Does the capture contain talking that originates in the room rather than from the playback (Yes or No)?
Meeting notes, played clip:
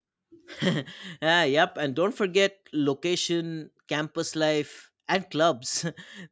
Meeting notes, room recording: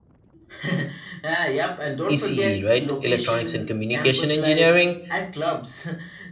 Yes